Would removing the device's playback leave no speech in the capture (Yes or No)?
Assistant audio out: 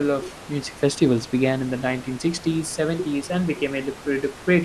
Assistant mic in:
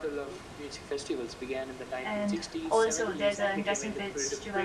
No